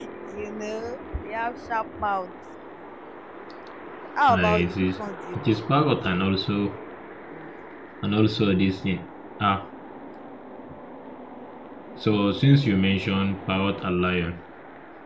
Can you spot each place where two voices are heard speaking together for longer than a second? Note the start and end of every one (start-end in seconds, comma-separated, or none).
4.3-6.1